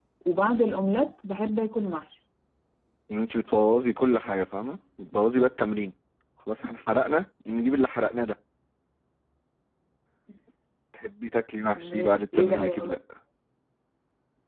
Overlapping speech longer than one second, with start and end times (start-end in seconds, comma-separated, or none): 11.8-13.0